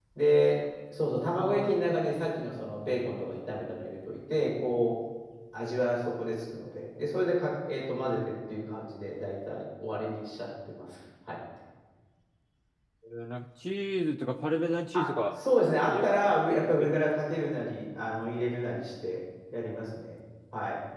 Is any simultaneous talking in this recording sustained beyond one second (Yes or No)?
No